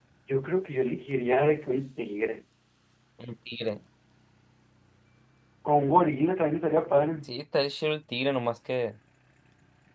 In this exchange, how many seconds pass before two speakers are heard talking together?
none

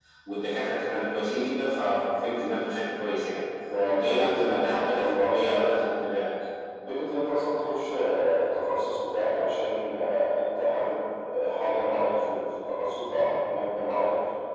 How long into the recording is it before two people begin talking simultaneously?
3.9 s

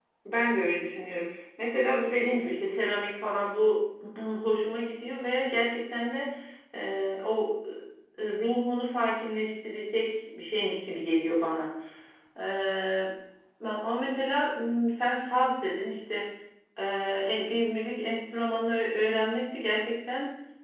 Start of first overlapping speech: none

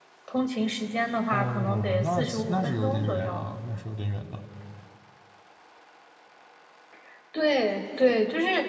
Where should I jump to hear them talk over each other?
1.3 s

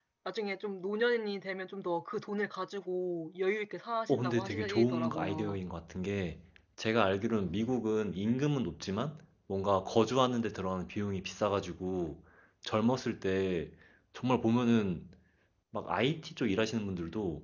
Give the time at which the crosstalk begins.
4.1 s

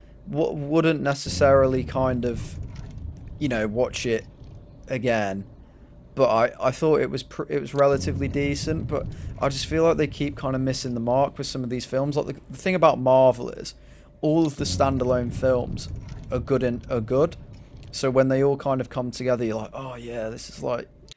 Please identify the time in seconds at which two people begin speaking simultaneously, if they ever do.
none

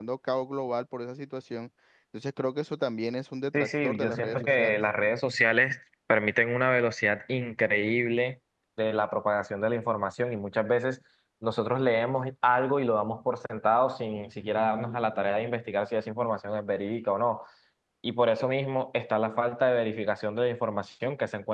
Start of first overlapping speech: 3.5 s

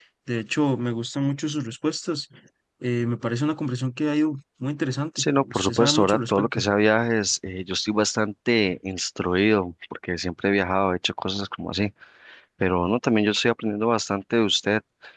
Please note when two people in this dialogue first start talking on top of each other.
5.2 s

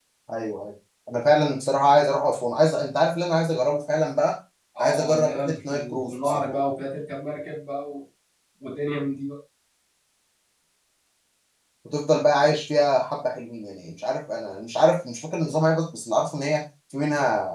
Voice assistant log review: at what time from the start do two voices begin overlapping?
4.8 s

